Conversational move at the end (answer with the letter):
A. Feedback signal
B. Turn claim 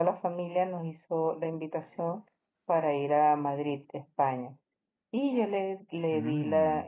A